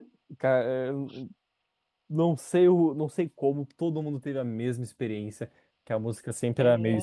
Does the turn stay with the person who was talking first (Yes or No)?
Yes